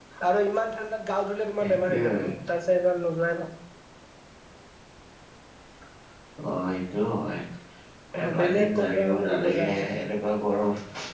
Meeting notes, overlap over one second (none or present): present